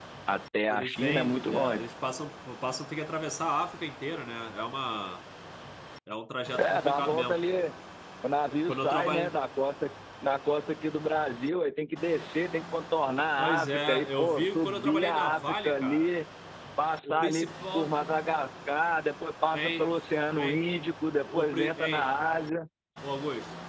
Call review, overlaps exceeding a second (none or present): present